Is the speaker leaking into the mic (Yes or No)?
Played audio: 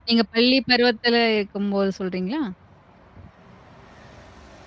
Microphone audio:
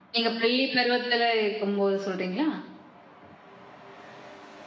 Yes